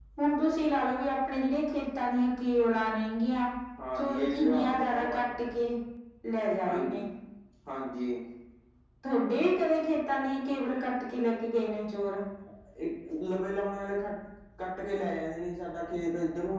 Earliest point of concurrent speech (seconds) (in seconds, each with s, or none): 4.0 s